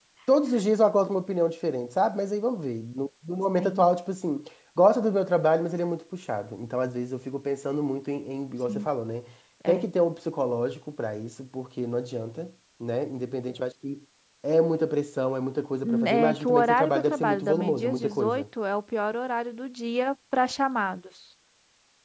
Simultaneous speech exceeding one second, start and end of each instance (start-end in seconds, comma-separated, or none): 15.8-18.4